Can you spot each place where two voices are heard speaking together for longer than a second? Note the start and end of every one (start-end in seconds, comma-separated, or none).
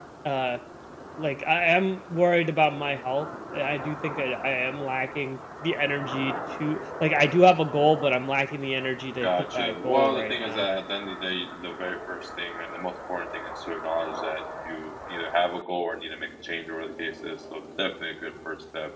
9.2-10.6